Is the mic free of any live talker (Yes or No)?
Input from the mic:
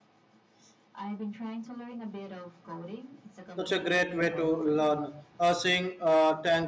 No